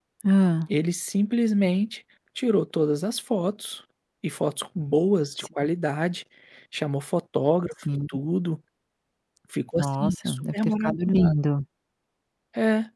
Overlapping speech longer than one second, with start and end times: 9.8-11.3

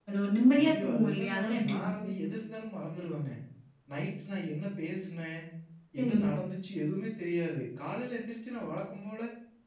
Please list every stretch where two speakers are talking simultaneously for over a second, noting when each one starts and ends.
0.6-2.2

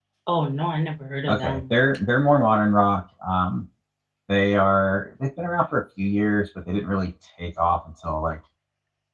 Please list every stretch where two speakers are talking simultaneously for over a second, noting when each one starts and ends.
none

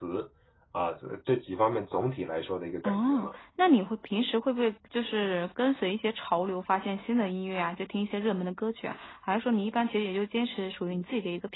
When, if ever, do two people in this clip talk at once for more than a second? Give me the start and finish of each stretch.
none

